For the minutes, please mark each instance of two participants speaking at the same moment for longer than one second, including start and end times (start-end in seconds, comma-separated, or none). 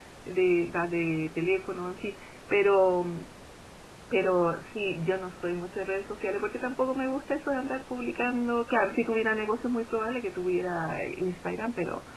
none